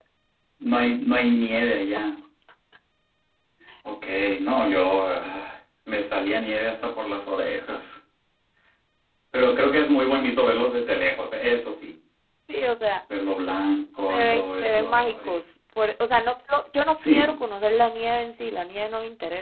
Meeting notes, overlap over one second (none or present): present